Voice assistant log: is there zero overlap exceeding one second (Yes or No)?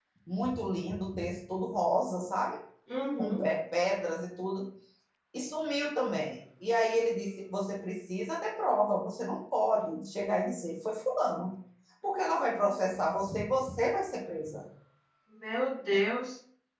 Yes